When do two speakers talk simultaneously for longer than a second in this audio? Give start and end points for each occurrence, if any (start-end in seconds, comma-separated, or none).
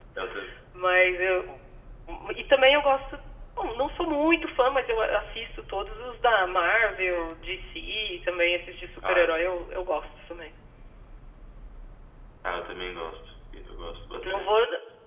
none